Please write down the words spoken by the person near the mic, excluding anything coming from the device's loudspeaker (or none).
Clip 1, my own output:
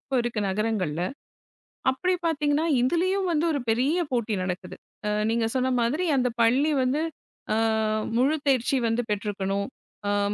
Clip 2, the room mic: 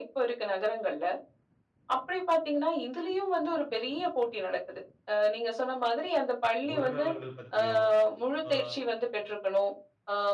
குணநலன்கள் பத்தியோ, அ